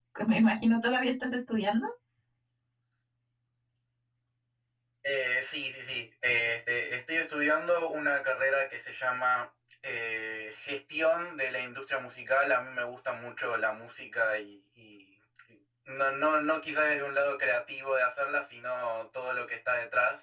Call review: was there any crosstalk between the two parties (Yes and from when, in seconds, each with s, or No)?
No